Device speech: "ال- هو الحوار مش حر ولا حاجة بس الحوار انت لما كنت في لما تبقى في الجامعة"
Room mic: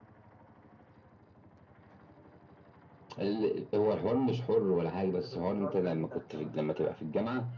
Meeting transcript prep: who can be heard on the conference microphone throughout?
both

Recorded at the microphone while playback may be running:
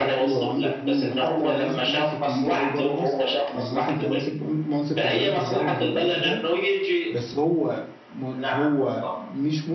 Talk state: both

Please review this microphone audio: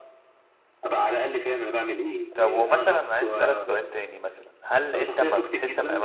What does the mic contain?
both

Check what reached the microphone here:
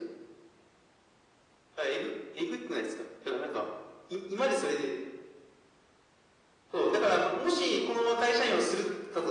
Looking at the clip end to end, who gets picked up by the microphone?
echo only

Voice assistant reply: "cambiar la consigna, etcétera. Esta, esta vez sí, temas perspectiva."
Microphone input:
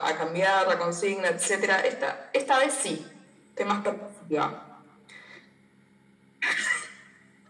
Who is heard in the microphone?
echo only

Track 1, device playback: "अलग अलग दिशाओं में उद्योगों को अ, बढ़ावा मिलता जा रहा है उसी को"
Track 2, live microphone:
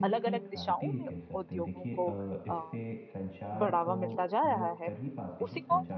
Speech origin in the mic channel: both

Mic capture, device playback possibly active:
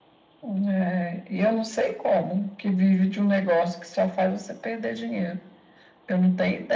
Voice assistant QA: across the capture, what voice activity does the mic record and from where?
echo only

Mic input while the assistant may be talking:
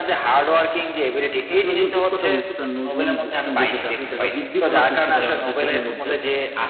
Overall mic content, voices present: both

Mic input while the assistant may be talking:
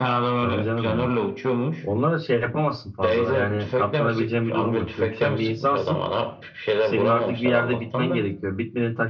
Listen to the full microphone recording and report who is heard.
both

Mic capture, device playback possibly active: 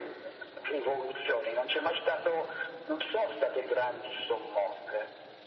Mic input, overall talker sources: echo only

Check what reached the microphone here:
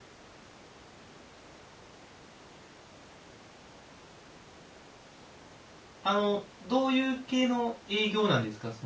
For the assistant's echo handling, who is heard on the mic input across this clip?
user only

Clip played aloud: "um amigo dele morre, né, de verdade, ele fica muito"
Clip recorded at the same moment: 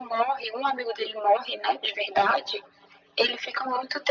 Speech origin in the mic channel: echo only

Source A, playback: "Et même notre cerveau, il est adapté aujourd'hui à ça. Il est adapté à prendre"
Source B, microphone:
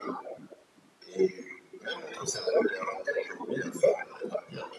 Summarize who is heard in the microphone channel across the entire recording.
echo only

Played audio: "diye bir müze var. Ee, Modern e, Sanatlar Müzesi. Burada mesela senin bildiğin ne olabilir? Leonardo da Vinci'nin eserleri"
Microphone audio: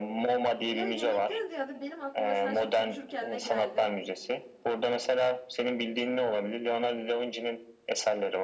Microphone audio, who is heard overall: both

